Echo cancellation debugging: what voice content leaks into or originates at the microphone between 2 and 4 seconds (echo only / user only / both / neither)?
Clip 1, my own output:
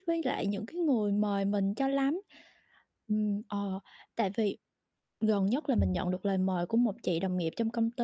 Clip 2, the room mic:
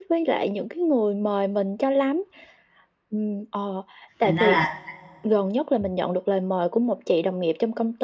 echo only